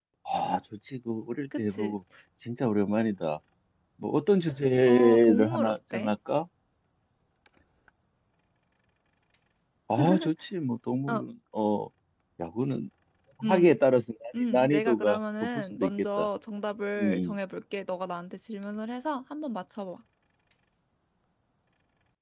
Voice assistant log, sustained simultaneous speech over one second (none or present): present